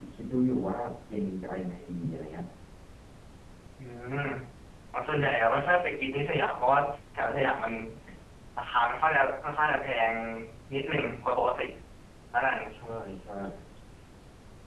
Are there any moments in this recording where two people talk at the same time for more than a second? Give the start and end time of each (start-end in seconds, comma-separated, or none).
none